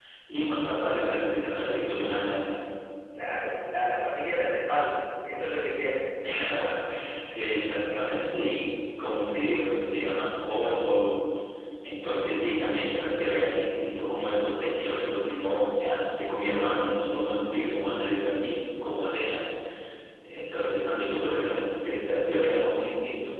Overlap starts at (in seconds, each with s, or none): none